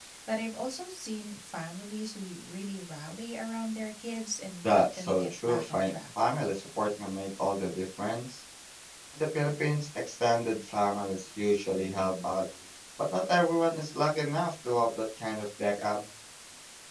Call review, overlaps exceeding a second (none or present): present